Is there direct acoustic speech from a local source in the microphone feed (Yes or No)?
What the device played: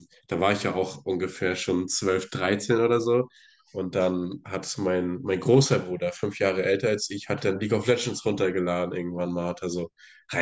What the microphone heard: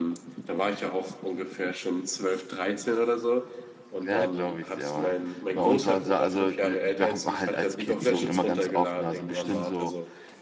Yes